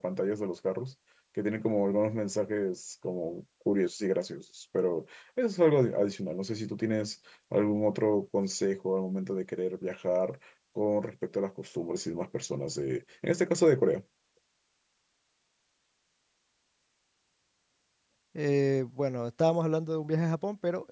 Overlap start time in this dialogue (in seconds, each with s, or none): none